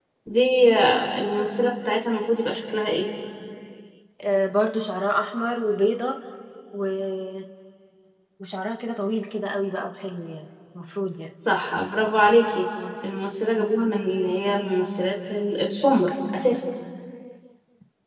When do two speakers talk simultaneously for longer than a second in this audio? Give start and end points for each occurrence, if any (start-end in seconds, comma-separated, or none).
none